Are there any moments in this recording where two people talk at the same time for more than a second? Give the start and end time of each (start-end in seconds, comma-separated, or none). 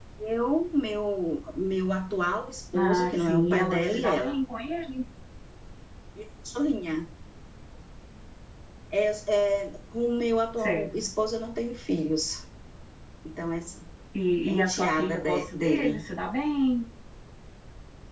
2.8-4.4, 14.5-16.0